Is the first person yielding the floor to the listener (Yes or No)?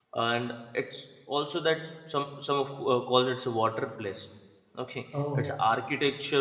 No